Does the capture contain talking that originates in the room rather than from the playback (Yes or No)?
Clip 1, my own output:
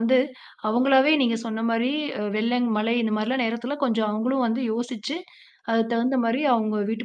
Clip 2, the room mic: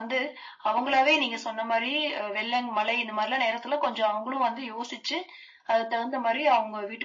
No